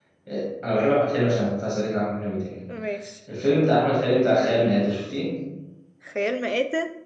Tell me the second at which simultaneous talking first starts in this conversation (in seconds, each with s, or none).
none